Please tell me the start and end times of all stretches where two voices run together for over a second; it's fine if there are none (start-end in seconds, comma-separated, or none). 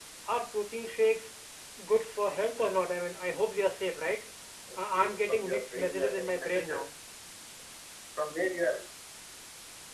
4.8-6.9